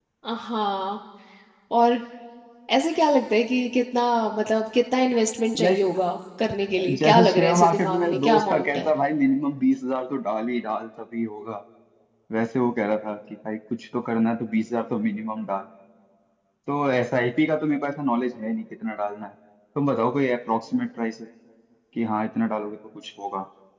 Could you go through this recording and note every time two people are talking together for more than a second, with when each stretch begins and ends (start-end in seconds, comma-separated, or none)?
7.0-8.9